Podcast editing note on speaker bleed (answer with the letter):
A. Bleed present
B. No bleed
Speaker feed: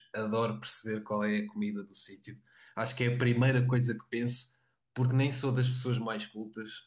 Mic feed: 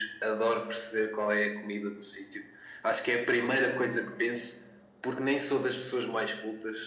A